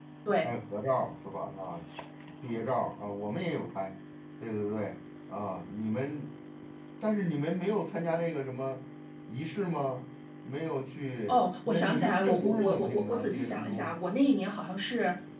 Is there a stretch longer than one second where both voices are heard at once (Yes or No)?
Yes